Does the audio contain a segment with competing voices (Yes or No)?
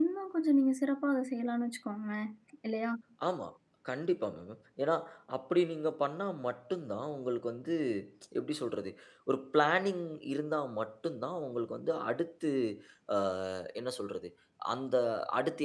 No